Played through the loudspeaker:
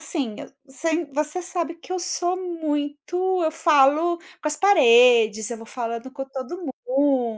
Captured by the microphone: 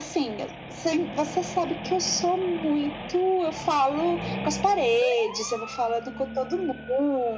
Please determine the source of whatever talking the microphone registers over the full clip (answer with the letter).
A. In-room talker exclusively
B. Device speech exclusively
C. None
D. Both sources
B